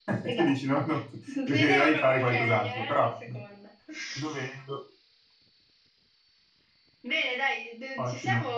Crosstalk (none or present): present